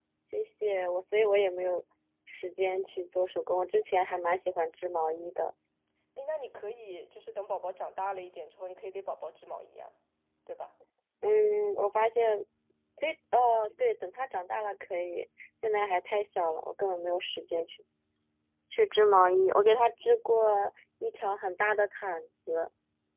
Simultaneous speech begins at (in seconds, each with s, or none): none